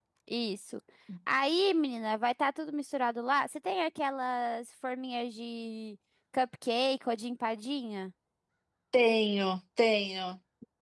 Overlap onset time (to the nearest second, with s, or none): none